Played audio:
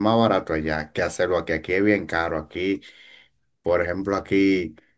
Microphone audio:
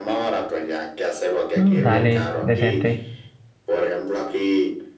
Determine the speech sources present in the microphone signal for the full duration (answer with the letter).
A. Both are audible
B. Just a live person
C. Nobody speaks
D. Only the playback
A